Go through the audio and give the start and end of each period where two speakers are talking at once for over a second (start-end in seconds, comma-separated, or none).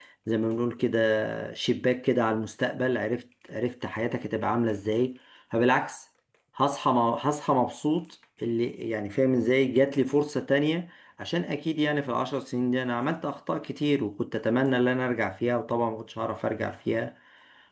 none